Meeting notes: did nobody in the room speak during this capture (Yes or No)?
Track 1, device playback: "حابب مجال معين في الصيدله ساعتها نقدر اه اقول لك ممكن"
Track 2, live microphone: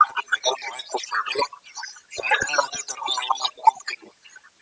Yes